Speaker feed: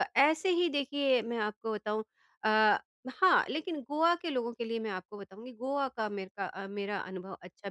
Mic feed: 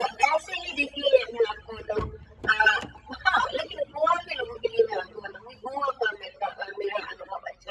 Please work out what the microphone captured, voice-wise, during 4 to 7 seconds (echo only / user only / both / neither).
echo only